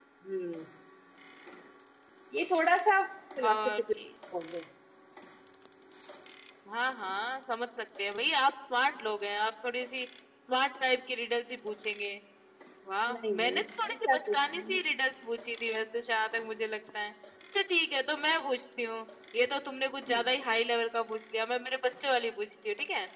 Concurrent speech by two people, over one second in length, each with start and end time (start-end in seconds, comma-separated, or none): 13.1-14.8